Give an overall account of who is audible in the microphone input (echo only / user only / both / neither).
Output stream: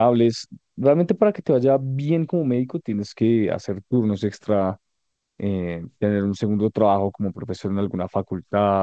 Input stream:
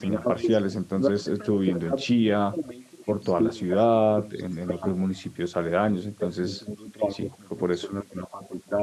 both